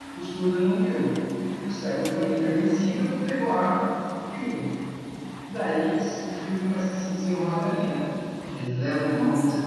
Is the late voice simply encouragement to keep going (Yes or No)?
Yes